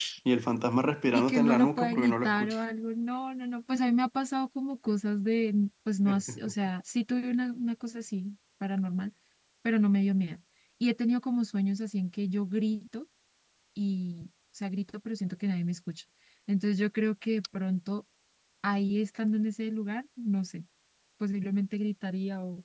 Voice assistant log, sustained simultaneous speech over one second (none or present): present